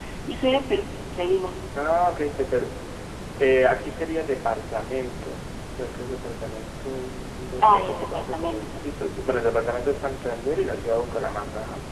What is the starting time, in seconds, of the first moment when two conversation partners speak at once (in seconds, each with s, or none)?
7.6 s